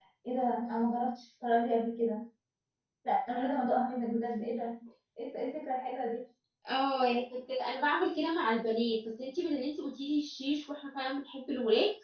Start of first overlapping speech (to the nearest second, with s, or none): none